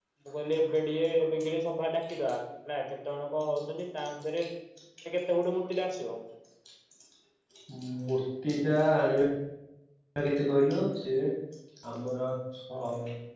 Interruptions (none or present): none